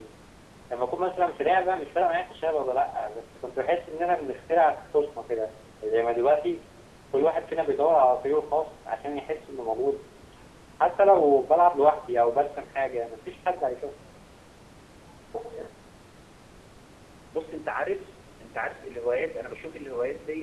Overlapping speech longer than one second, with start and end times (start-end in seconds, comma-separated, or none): none